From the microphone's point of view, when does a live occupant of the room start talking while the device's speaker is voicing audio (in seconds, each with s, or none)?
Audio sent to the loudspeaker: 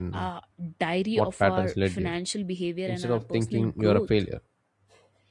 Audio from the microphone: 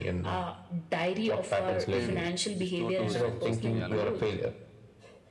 1.6 s